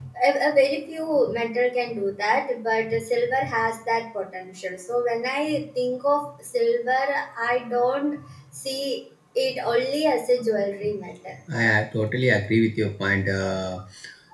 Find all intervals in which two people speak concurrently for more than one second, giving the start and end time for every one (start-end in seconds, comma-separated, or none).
none